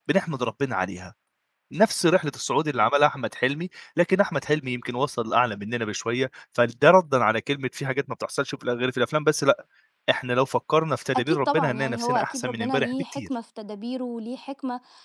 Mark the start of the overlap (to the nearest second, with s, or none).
11 s